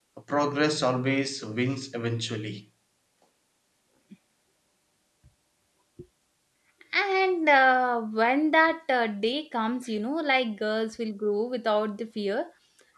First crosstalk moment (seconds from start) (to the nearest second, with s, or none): none